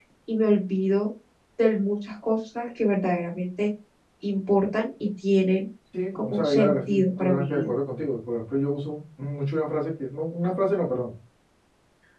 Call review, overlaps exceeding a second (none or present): present